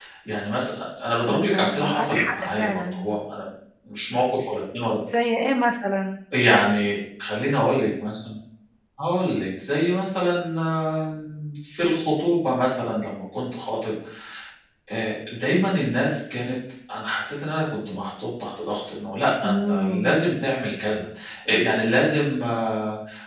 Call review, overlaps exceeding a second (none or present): present